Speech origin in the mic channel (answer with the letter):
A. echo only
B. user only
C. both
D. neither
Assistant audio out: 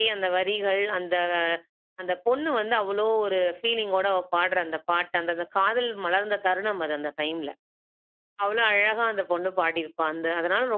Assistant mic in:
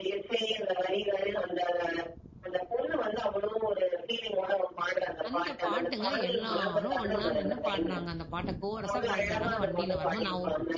C